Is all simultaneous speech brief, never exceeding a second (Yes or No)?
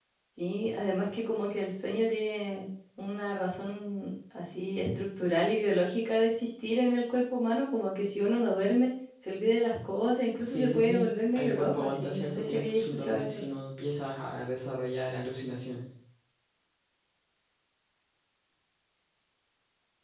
No